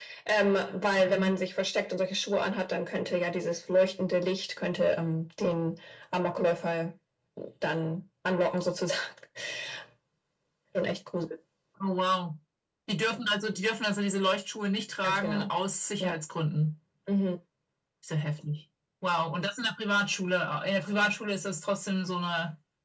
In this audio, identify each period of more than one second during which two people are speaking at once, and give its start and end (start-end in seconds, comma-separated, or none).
none